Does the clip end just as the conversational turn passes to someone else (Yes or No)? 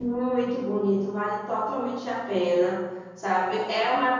No